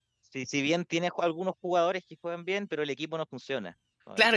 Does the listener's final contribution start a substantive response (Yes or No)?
Yes